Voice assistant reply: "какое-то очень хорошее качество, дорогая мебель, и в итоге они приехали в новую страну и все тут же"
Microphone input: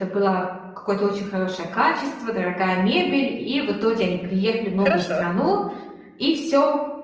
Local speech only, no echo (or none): хорошо.